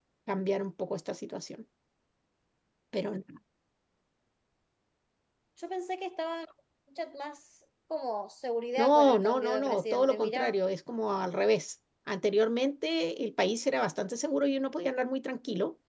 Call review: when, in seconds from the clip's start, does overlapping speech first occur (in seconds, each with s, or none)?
8.8 s